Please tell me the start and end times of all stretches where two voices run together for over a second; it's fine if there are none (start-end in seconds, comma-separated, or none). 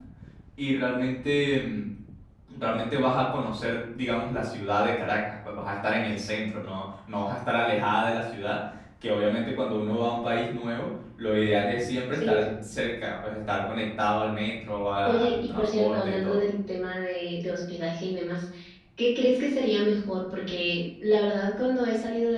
15.0-16.4